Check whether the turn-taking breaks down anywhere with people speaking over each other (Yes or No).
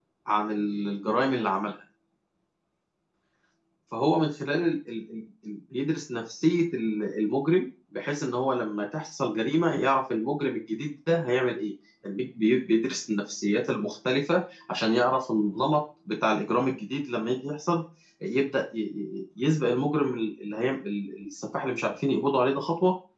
No